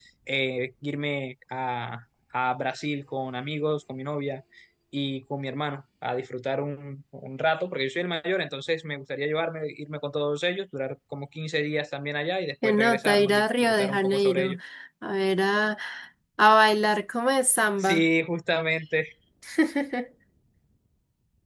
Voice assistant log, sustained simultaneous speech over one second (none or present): present